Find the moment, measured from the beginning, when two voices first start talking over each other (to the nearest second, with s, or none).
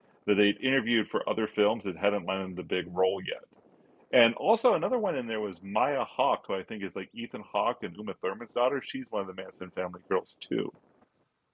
none